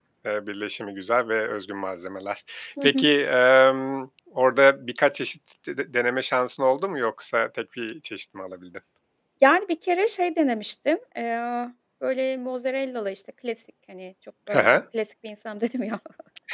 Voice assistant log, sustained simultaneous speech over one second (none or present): none